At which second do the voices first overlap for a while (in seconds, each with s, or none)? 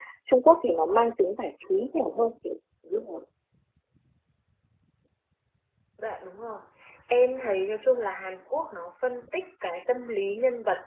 none